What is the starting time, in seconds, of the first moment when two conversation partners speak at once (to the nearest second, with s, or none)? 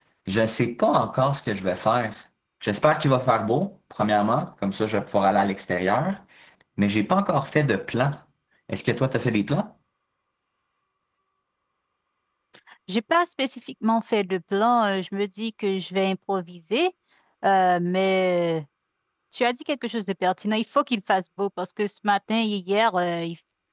none